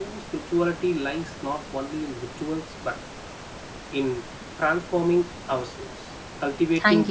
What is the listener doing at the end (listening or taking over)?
listening